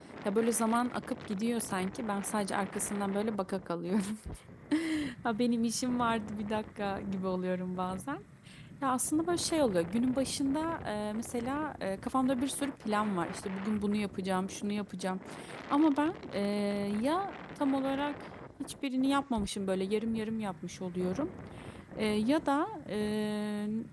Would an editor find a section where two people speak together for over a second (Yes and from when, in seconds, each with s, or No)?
No